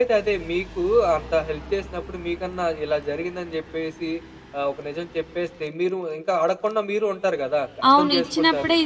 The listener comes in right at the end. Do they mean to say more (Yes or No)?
Yes